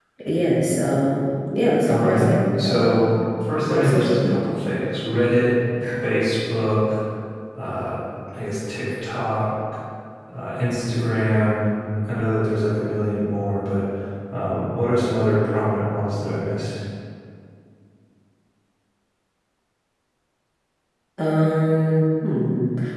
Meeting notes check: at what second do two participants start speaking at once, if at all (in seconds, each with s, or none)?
1.9 s